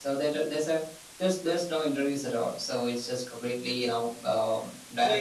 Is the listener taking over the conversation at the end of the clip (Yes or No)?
Yes